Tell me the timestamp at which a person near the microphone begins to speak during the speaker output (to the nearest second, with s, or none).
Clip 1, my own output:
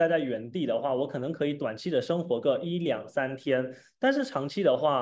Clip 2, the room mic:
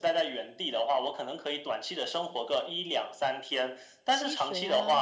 4 s